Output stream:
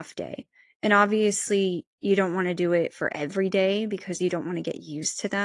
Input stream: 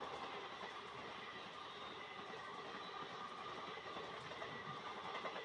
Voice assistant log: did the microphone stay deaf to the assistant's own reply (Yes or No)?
Yes